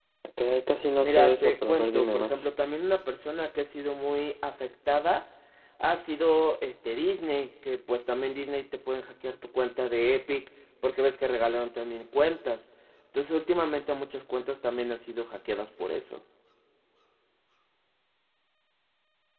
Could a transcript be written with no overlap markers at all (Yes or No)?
No